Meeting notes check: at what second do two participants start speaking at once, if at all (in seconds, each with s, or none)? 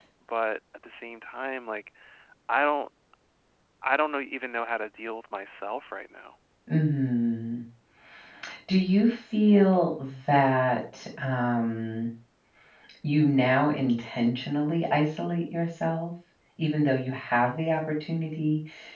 none